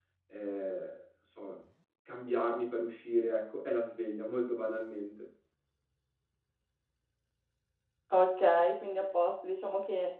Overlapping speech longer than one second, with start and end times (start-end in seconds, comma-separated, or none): none